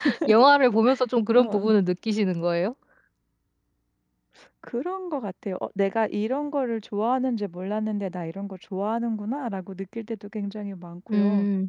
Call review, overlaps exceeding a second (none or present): none